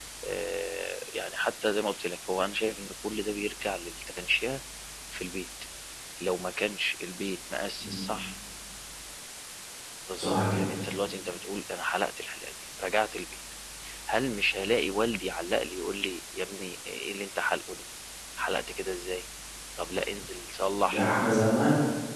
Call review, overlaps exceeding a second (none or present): none